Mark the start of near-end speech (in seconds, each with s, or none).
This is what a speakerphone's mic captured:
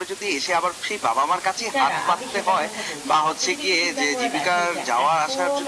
1.7 s